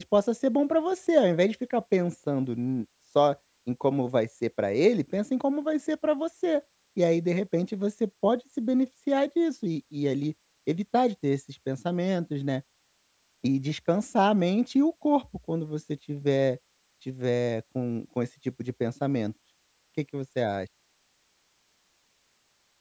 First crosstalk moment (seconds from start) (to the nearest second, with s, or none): none